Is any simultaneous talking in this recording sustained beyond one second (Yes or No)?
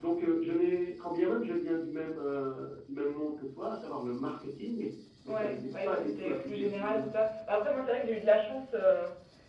Yes